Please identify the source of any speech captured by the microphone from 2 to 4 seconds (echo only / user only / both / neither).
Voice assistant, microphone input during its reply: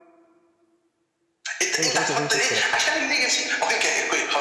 both